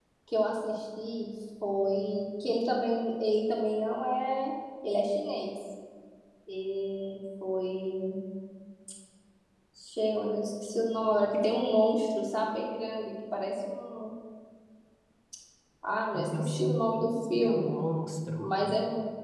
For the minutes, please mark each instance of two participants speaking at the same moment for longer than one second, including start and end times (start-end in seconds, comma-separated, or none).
16.1-17.7